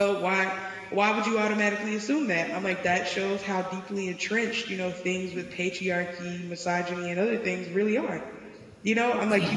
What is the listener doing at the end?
listening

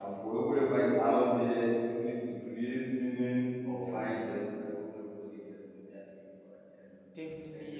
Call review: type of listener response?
taking over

